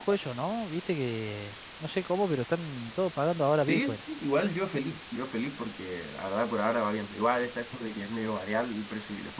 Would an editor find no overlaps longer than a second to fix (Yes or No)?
Yes